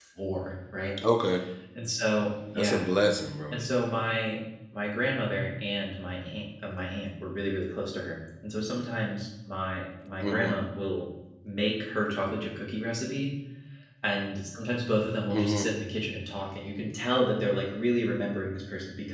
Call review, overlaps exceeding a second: none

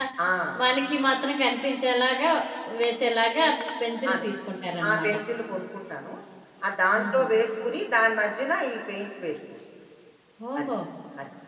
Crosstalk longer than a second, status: none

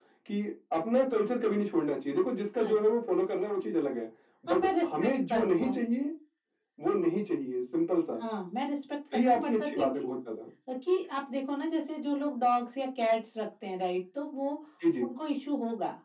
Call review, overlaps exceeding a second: present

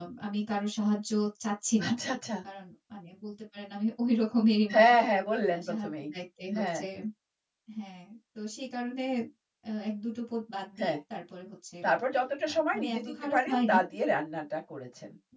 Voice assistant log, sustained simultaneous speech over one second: present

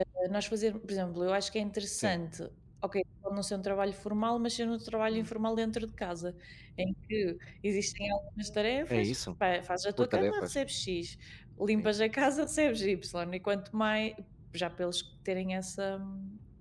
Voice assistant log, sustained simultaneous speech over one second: none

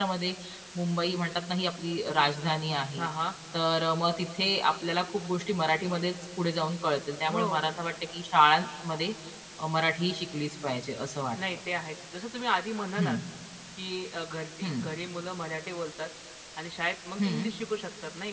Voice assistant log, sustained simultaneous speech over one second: none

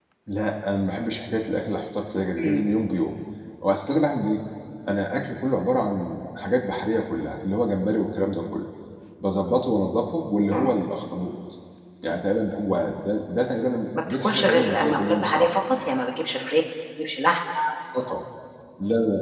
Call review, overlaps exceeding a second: present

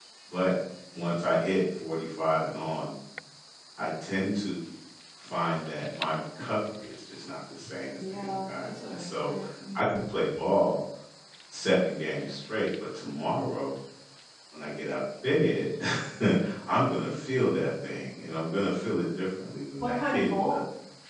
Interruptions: present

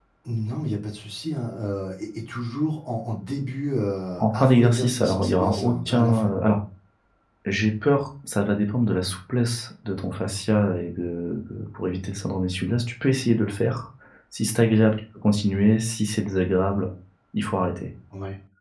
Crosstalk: present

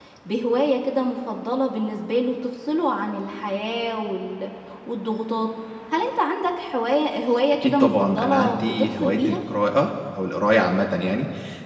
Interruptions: present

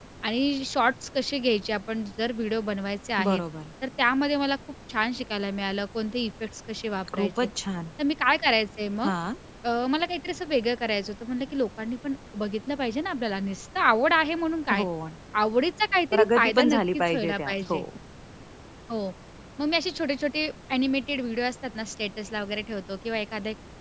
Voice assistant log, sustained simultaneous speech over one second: present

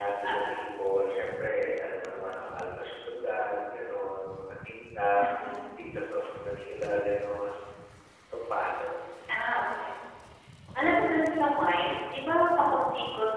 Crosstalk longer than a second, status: none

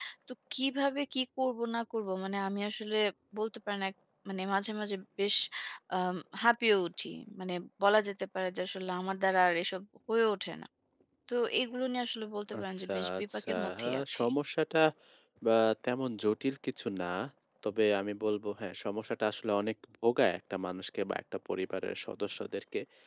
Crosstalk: present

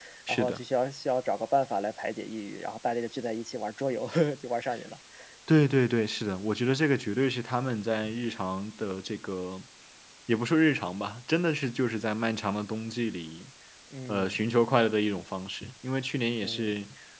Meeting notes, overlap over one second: none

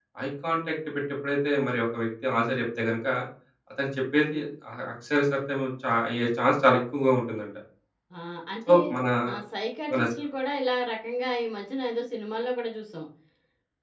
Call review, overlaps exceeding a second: none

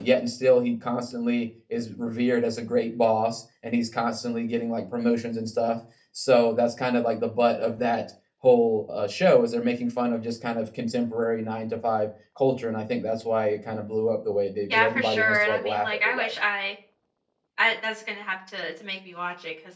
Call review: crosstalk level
present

